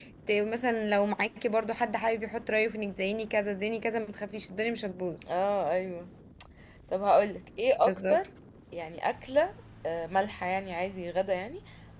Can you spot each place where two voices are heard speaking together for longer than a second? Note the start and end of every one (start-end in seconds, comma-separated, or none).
none